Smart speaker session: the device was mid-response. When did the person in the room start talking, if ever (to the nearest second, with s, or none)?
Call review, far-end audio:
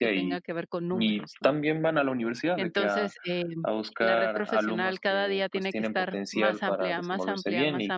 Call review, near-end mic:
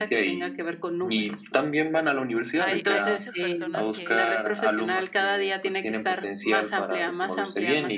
3 s